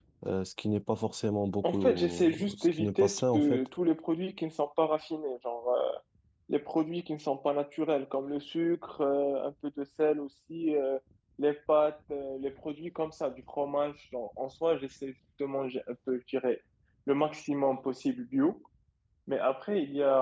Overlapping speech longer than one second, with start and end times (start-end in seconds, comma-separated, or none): 1.6-3.7